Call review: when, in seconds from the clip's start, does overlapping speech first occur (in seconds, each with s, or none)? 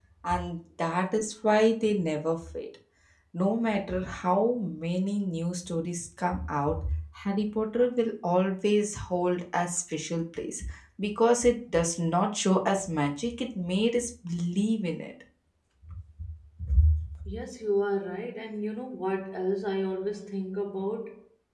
none